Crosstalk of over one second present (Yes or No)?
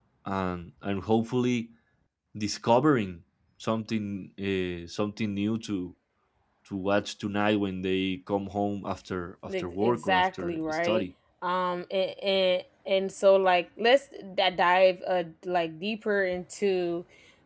Yes